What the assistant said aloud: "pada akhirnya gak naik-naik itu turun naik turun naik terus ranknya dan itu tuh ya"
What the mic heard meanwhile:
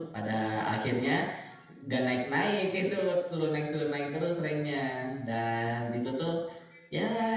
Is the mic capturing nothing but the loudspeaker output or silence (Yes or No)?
Yes